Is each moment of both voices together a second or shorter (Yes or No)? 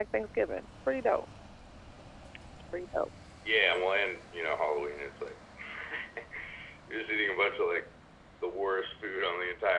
Yes